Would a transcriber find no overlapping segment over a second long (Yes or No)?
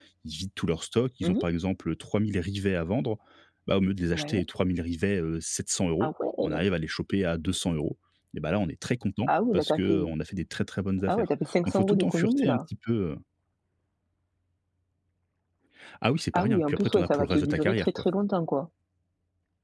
No